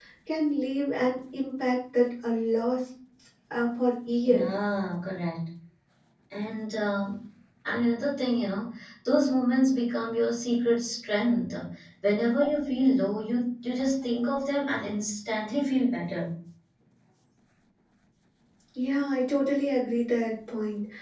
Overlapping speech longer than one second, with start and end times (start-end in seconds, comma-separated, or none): none